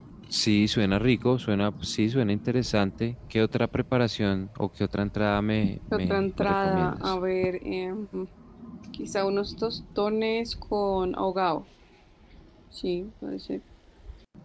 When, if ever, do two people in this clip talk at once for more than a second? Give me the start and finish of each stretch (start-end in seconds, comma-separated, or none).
5.9-7.2